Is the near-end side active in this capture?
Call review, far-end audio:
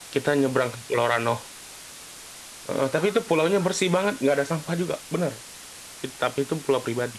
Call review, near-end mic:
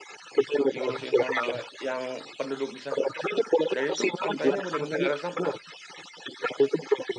Yes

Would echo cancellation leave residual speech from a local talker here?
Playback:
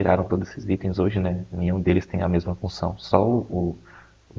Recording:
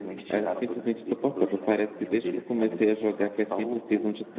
Yes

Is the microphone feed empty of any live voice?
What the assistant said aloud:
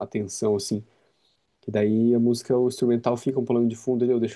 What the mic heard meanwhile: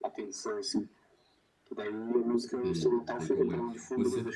No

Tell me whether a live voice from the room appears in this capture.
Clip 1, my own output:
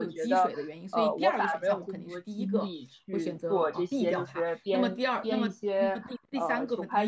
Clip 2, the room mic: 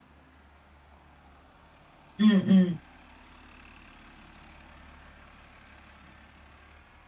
Yes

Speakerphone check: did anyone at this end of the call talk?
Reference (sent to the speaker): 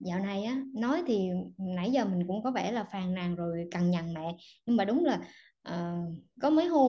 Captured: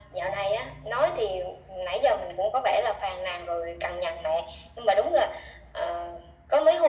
No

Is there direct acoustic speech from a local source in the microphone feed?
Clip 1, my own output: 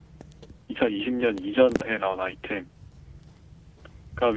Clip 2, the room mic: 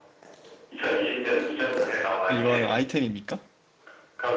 Yes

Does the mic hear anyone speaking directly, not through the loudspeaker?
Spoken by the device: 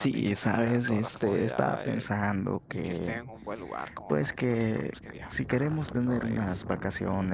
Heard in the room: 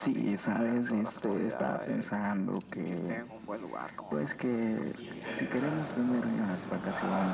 Yes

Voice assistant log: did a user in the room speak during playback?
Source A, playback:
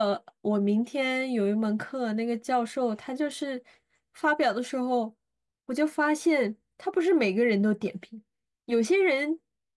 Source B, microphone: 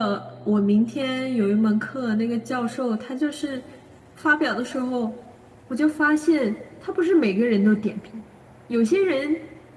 No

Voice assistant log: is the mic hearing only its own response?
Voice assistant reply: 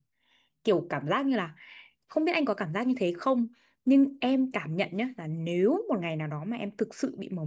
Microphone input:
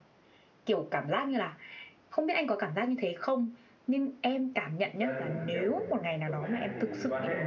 No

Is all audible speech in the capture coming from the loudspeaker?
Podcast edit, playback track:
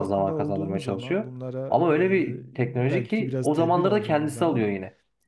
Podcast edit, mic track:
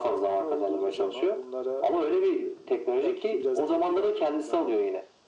Yes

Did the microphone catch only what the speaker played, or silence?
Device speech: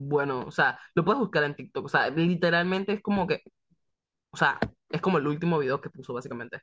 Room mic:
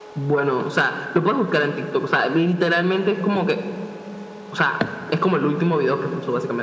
Yes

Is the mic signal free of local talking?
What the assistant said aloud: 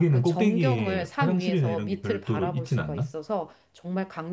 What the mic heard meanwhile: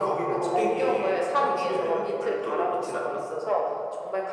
Yes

